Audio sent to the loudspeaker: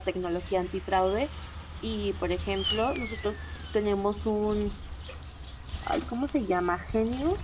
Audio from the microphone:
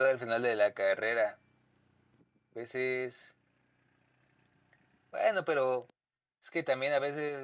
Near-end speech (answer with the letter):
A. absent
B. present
B